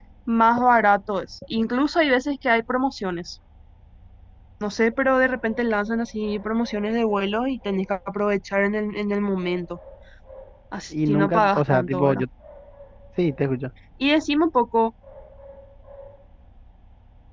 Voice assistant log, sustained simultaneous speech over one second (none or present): present